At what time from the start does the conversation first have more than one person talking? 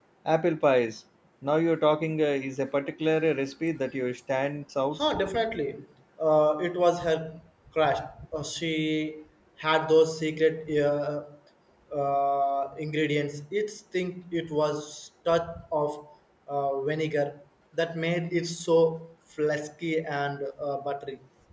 none

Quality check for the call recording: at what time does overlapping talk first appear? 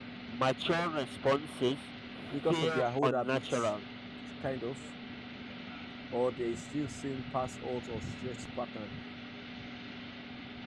2.5 s

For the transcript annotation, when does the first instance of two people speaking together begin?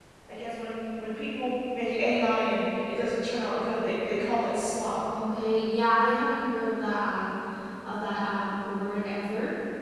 none

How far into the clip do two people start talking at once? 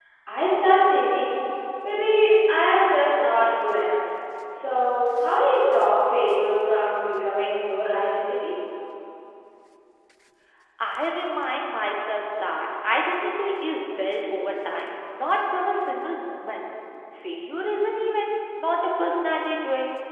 none

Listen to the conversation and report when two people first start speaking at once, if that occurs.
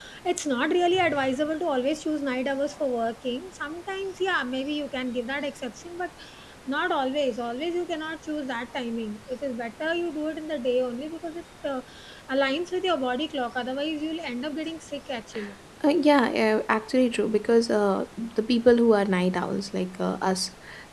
none

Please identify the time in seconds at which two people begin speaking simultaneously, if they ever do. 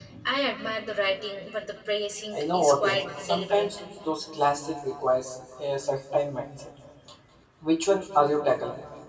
2.3 s

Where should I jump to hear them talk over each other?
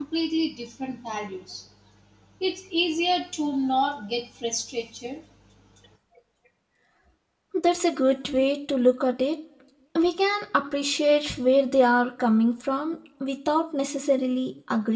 none

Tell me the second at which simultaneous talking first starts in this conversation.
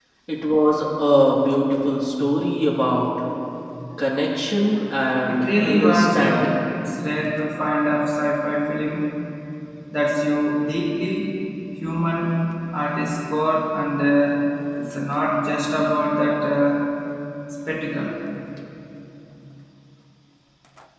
5.3 s

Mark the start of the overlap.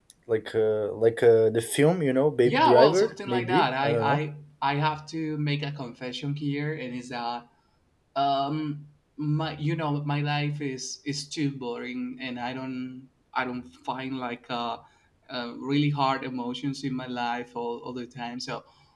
2.4 s

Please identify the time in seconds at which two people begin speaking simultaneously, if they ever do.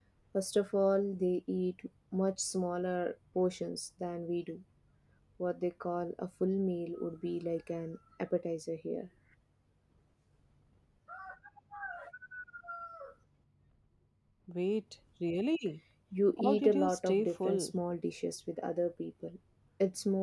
16.4 s

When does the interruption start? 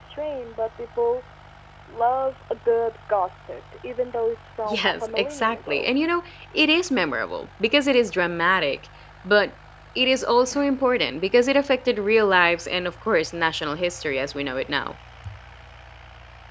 4.7 s

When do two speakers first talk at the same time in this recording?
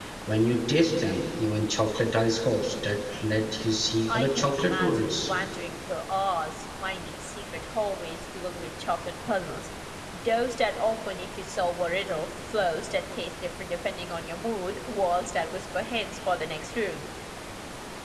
4.1 s

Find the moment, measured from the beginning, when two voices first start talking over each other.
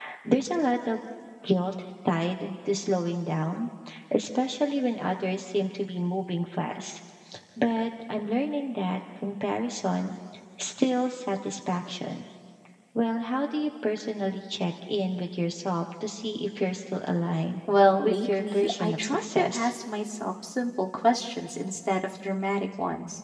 18.0 s

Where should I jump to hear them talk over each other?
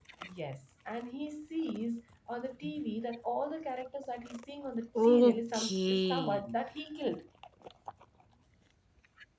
5.0 s

